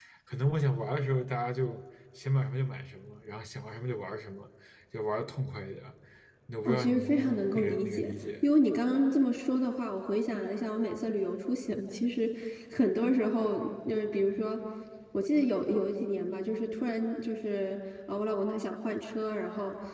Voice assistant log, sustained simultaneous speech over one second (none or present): present